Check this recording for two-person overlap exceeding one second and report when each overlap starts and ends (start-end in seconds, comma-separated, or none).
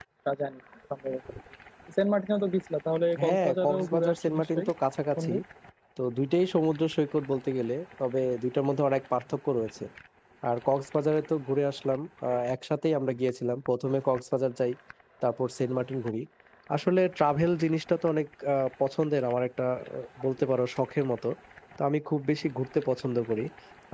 3.2-4.7